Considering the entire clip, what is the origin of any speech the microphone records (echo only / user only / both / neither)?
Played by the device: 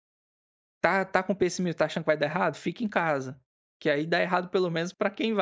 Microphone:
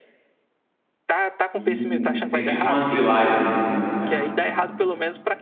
both